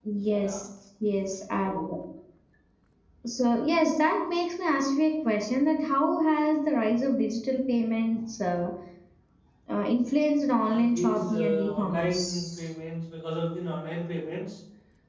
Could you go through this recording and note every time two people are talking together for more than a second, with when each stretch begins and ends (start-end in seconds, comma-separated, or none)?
10.6-12.6